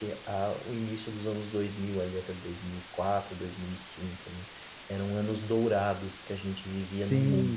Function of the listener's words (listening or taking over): taking over